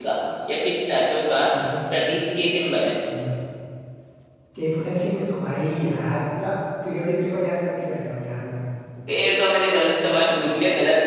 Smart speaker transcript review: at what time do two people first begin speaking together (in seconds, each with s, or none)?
none